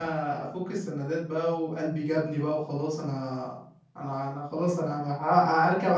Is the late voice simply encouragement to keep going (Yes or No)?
Yes